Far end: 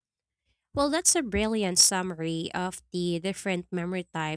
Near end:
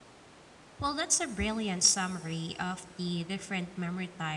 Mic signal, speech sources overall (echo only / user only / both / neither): echo only